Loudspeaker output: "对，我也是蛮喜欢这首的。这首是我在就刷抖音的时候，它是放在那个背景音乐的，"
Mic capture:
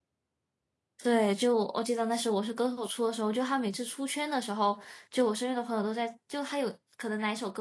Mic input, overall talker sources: user only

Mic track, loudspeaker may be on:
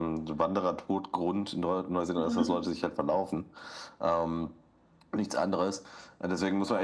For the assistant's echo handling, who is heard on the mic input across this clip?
both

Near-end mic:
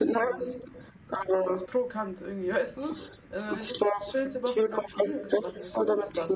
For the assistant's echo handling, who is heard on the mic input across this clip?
both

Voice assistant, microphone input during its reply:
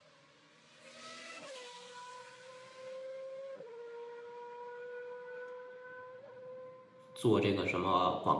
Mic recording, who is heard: user only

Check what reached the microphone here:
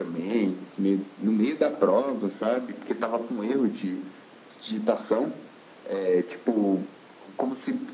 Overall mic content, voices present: echo only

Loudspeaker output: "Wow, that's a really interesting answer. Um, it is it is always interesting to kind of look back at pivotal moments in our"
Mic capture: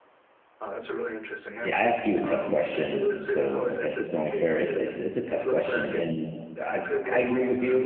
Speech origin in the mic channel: both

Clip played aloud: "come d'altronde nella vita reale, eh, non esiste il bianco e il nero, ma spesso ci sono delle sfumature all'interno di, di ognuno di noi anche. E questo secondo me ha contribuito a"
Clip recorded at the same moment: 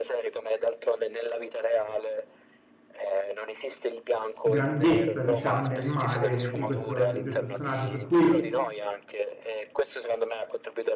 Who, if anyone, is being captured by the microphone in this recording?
both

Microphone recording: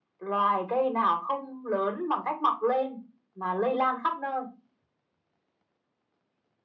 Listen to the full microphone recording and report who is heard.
echo only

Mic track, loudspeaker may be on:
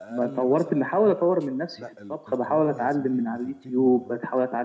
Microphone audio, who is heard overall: both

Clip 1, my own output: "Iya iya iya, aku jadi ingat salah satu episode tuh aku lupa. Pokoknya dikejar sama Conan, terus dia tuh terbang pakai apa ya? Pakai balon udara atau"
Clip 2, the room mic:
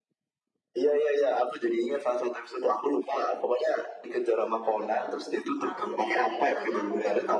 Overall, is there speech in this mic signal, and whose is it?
both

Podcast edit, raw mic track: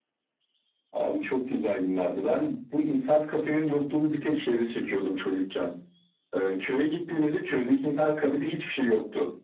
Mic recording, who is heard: echo only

